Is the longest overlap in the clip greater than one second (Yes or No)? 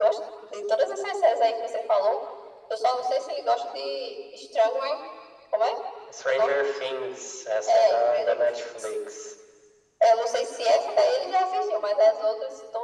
Yes